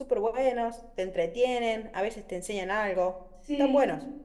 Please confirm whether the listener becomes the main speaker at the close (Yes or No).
Yes